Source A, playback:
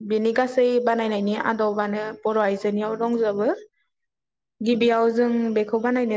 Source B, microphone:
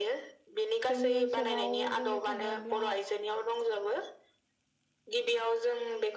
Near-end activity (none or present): present